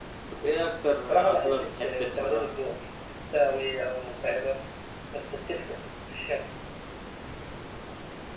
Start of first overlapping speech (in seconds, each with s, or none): 1.1 s